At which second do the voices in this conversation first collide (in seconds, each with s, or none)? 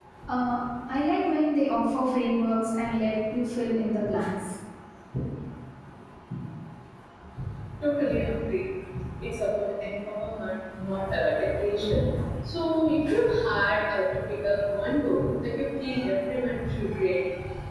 none